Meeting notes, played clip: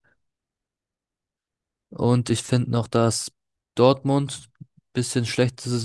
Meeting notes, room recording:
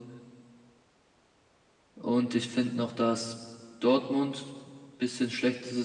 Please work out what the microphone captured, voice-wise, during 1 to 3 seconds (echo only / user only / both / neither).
echo only